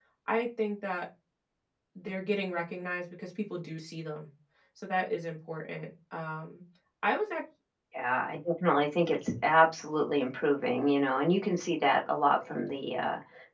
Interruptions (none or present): none